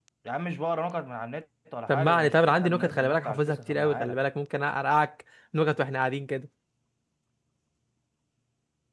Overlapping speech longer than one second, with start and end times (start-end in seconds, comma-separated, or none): 1.9-4.2